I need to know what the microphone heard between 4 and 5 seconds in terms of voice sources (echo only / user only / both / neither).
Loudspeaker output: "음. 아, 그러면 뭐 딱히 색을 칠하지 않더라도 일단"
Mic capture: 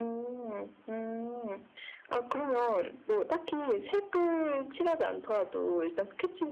echo only